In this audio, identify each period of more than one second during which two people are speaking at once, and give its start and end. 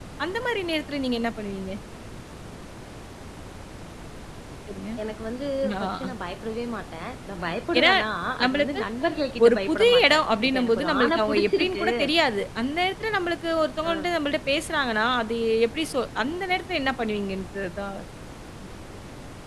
9.4-11.9

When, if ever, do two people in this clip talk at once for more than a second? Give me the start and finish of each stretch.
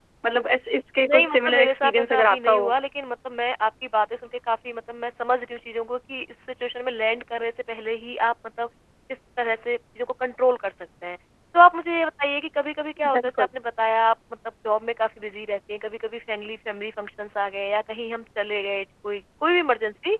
1.0-2.7

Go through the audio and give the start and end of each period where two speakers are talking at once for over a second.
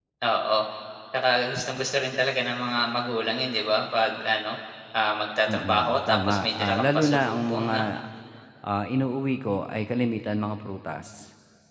5.5-7.8

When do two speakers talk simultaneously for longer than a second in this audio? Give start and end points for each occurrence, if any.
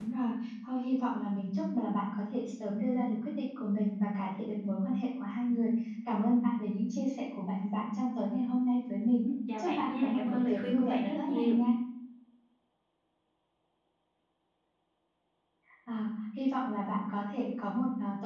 9.6-11.6

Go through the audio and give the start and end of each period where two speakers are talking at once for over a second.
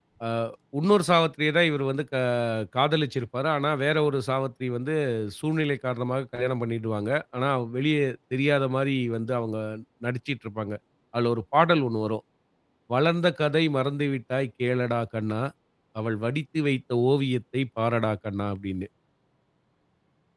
none

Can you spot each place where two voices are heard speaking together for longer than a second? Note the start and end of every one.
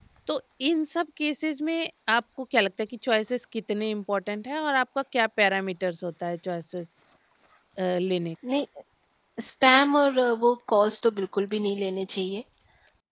none

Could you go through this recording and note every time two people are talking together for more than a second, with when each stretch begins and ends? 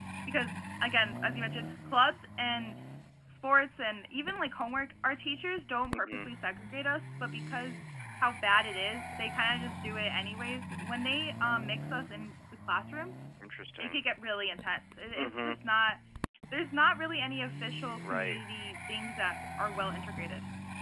none

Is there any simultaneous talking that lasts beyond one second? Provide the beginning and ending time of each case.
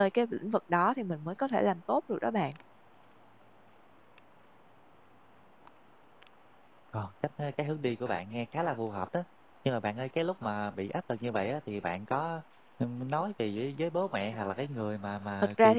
none

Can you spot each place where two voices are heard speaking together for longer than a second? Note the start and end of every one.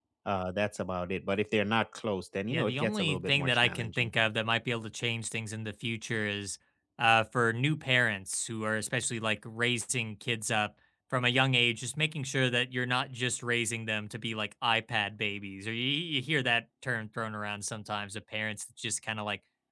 2.5-4.1

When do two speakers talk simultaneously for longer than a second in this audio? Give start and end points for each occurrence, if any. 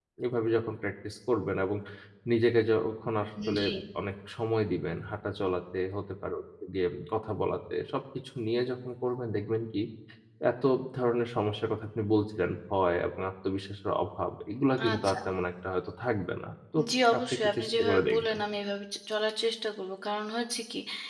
17.2-18.4

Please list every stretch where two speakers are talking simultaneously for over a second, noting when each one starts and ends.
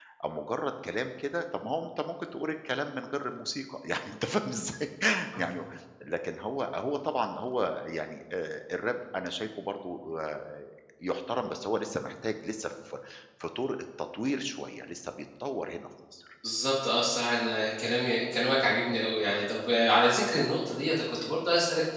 none

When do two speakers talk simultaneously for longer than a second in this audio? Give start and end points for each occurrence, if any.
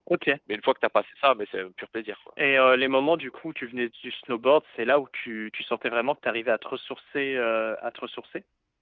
none

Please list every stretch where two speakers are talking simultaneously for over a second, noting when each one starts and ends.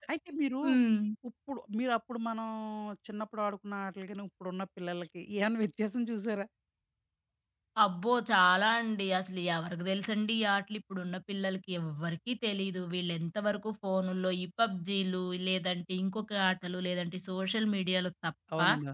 none

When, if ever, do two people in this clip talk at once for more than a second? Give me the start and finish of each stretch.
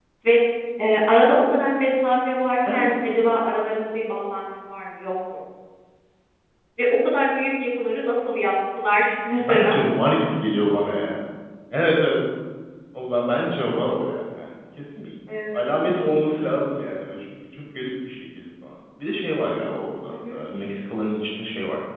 none

